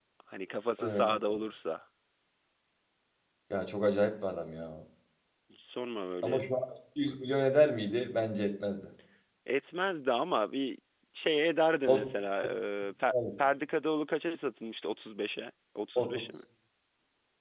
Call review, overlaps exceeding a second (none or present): none